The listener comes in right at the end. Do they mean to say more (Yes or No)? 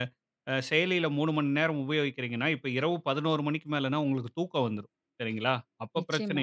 No